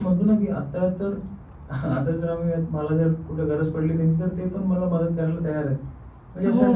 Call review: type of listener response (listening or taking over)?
taking over